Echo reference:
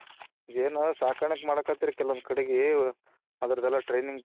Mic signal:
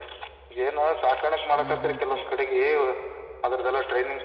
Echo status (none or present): present